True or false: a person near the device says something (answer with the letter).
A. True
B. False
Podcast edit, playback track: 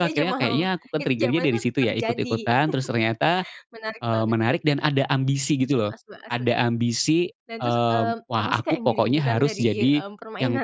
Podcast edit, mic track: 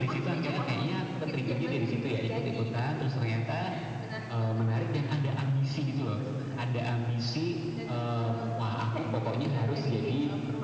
B